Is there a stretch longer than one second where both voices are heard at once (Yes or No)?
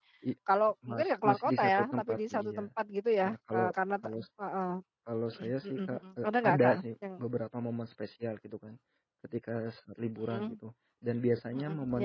Yes